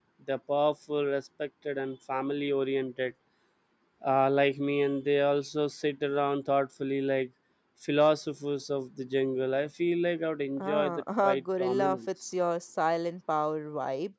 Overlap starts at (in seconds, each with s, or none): 10.6 s